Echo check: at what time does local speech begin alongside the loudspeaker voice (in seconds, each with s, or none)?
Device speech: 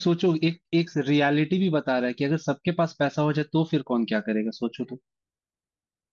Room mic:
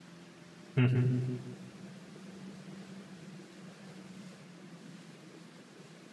0.8 s